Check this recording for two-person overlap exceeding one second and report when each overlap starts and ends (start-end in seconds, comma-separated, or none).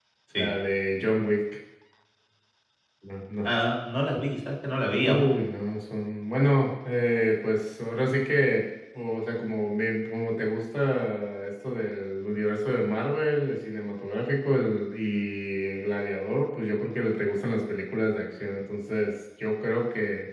none